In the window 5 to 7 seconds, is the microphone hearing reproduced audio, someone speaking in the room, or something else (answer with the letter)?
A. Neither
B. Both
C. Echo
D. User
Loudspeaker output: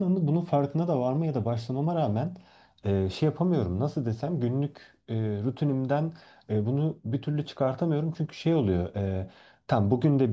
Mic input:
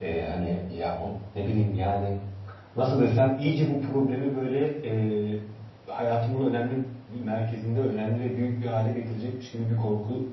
D